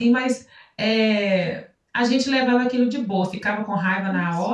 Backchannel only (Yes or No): Yes